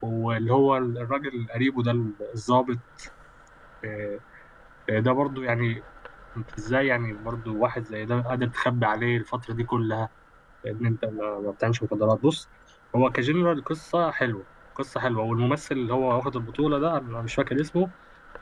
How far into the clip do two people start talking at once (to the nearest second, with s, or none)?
none